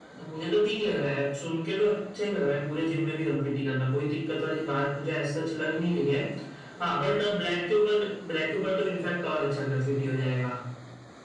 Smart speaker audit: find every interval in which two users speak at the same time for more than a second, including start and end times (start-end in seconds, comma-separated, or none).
none